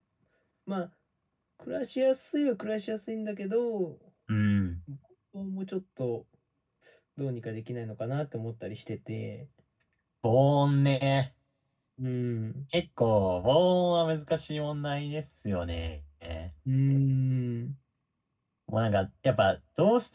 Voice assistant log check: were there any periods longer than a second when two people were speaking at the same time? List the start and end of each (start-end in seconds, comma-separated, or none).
none